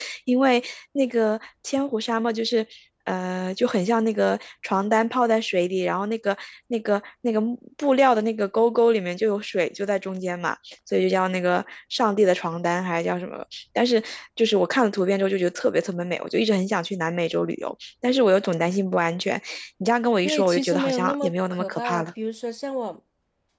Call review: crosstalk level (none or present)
present